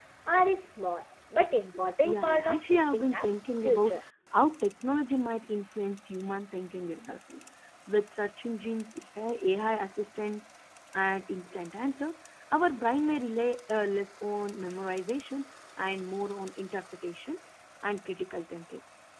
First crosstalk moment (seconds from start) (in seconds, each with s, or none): 2.0 s